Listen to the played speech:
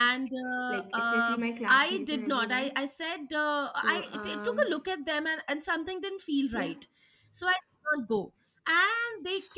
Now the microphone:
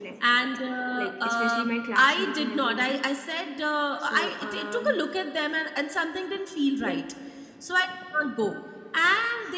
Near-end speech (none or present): none